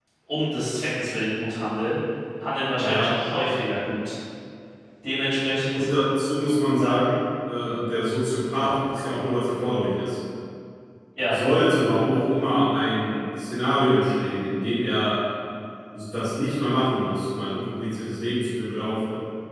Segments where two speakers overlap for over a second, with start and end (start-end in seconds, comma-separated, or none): none